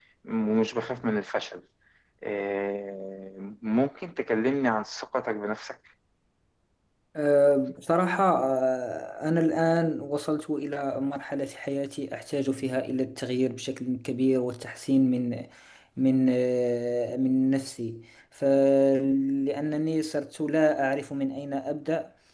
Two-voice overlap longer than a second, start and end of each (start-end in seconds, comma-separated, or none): none